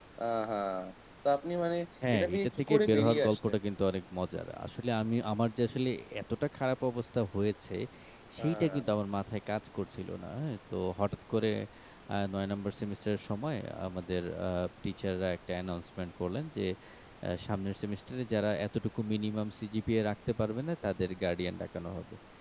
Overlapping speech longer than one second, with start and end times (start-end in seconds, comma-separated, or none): 2.1-3.5